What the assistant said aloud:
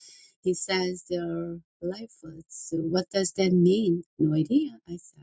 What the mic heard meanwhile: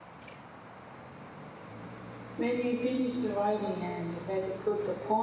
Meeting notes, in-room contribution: present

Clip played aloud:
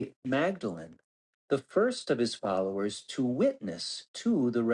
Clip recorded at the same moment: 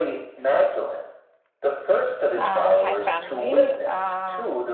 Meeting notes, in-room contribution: present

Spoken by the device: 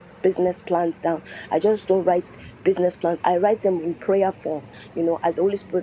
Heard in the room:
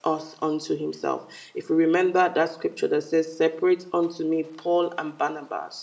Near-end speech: present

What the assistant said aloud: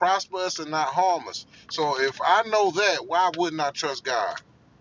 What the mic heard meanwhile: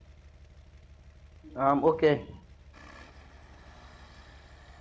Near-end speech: present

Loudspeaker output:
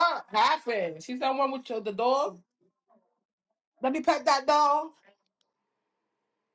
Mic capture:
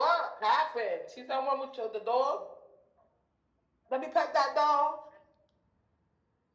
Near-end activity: none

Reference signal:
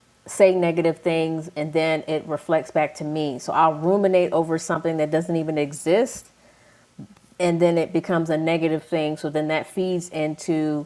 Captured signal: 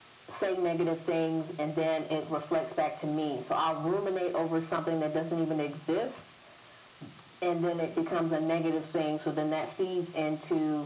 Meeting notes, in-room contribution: none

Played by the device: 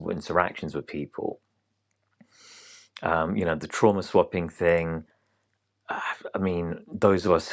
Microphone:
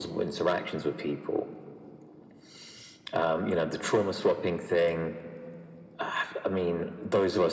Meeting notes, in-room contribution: none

